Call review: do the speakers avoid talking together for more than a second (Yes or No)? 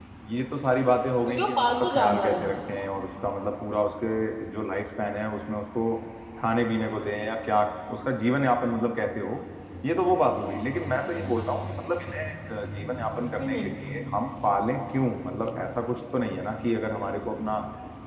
No